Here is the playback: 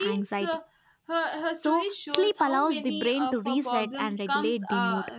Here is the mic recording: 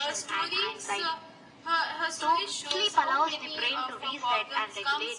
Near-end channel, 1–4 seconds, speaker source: echo only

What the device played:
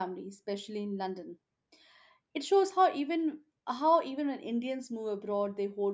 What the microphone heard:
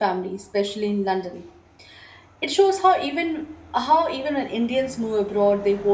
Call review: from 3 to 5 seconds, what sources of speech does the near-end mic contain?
echo only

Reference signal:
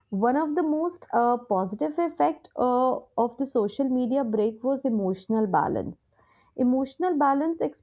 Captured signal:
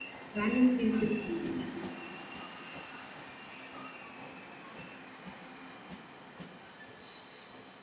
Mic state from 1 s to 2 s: user only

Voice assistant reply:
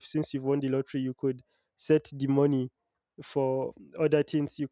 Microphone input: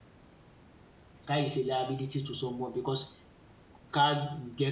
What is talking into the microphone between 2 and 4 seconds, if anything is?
user only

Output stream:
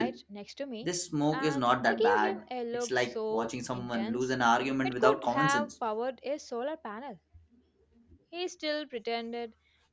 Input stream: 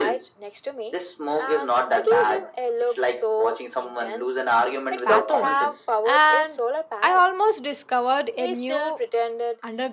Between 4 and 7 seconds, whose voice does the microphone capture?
both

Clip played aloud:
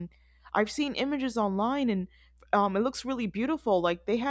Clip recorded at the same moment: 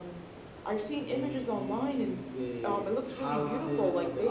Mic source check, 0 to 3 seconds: both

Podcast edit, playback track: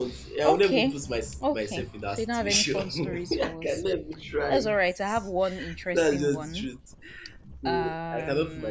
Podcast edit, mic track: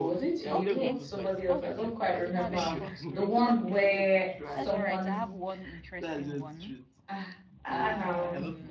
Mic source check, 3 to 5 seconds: both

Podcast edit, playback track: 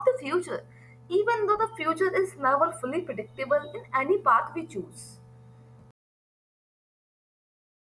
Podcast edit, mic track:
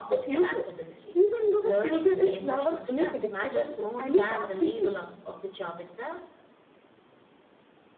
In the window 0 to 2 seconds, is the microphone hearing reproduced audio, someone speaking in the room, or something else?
both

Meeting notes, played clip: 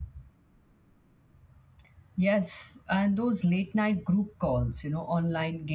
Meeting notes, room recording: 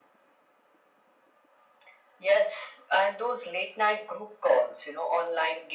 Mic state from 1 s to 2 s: neither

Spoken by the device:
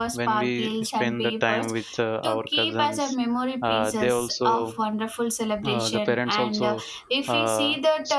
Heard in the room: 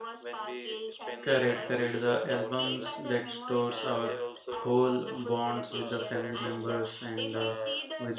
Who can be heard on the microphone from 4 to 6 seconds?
both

